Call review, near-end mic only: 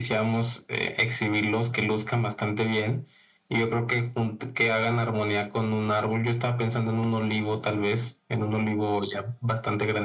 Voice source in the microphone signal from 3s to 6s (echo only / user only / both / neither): echo only